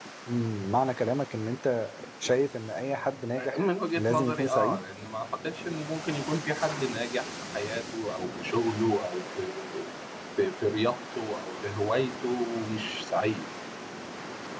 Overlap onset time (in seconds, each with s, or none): 3.4 s